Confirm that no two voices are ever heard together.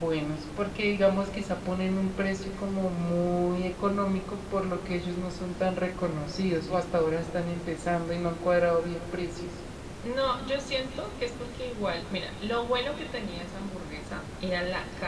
Yes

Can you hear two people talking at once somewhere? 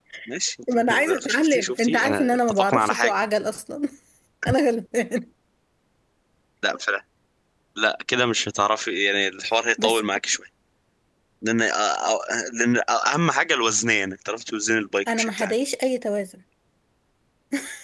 Yes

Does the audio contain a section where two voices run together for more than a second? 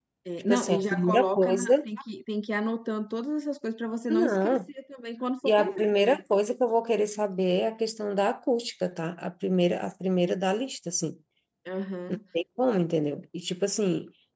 Yes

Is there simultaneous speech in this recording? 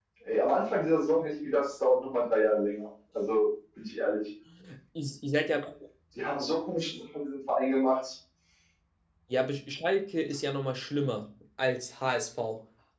No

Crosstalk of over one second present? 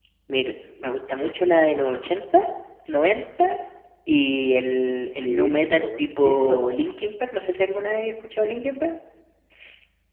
Yes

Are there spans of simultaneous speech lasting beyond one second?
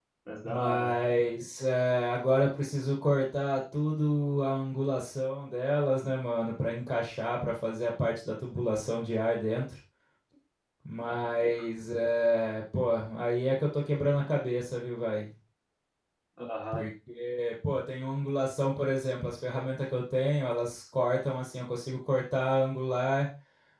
No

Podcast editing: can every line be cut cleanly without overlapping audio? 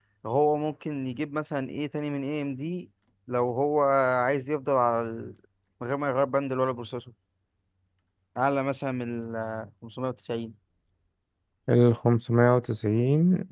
Yes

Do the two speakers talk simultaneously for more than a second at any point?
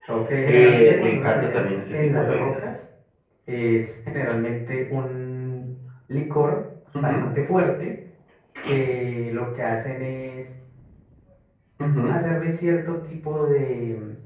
Yes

